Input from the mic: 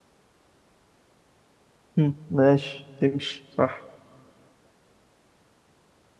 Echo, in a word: none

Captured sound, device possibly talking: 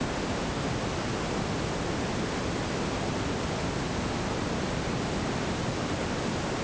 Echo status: none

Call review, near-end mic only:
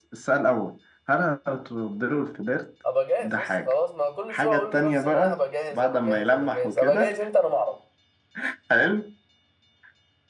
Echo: present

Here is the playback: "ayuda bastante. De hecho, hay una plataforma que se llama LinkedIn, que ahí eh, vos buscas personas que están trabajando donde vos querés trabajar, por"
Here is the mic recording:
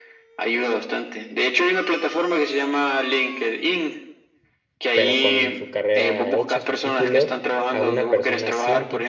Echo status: present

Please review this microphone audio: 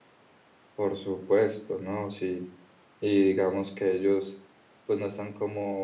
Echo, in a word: none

